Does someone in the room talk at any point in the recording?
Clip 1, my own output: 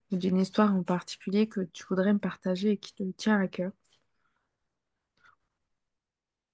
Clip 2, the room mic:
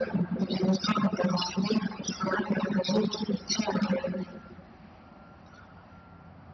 No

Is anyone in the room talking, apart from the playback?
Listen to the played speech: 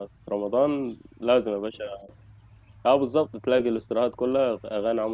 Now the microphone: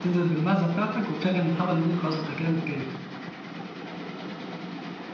Yes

